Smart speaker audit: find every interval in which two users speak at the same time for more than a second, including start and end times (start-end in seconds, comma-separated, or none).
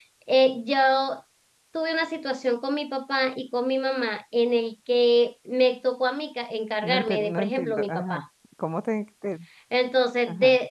6.8-8.2